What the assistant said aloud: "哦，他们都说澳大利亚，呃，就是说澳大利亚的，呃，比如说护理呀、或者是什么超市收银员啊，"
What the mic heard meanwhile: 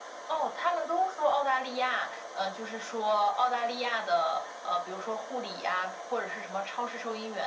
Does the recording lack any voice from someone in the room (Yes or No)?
Yes